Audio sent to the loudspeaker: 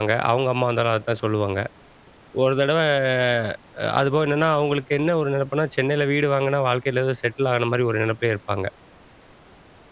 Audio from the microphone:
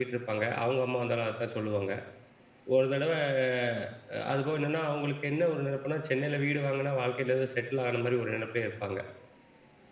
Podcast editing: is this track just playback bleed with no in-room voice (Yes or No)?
Yes